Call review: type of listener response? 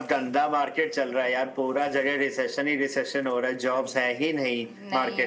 listening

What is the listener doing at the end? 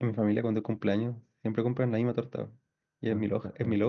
listening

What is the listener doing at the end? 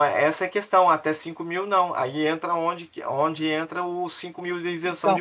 taking over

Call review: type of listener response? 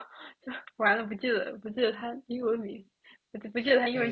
taking over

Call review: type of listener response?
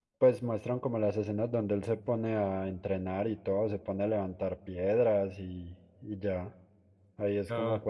listening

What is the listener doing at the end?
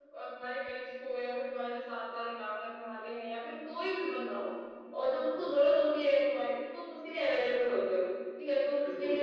listening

